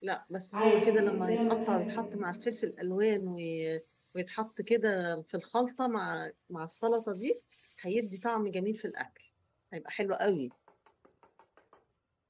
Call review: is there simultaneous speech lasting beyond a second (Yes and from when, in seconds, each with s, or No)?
Yes, from 0.5 s